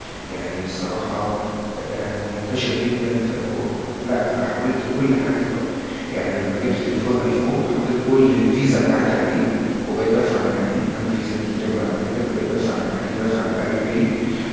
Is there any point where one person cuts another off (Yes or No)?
No